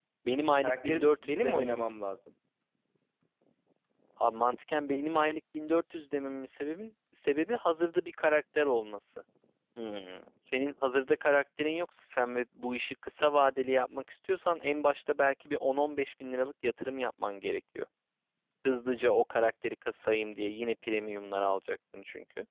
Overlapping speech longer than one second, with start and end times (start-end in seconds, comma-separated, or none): 0.6-1.8